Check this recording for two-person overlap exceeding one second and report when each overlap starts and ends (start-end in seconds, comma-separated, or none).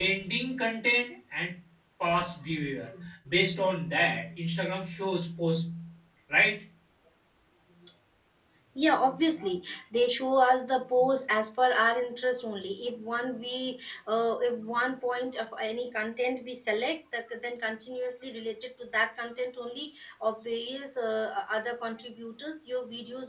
none